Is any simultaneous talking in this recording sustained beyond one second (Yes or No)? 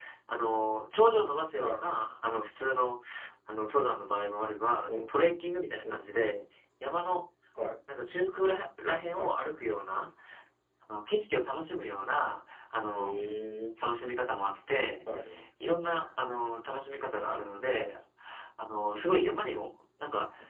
No